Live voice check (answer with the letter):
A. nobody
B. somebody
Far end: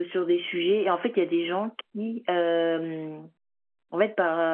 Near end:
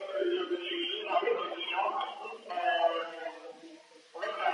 A